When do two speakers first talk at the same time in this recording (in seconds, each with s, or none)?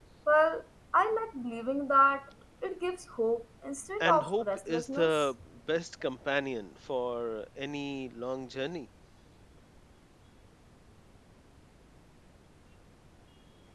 4.0 s